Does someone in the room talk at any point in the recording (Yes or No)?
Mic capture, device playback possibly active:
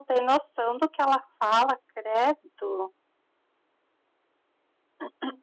Yes